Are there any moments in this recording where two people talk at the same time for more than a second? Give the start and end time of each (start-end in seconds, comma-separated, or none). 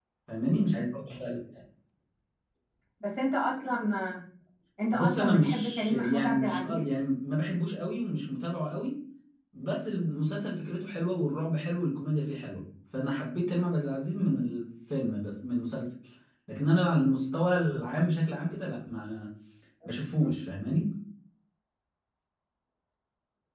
4.9-6.9